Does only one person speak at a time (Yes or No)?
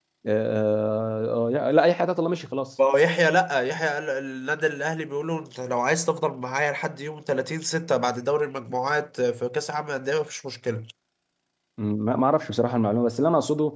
Yes